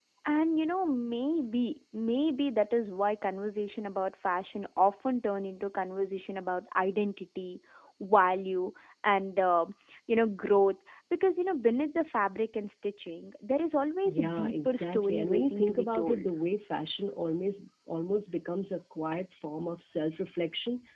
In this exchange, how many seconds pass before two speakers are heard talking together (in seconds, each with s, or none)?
14.0 s